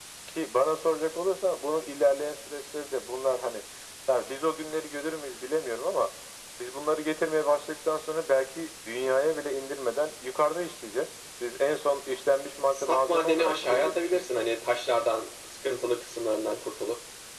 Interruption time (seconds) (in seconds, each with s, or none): 12.7 s